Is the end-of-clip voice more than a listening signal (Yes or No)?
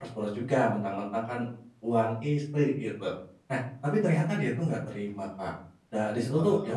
No